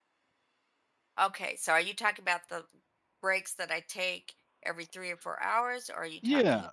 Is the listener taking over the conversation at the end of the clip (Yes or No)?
Yes